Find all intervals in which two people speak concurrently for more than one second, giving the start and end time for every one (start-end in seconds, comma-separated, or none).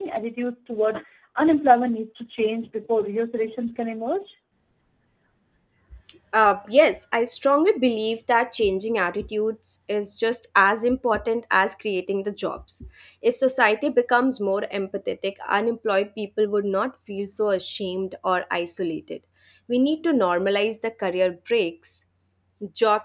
none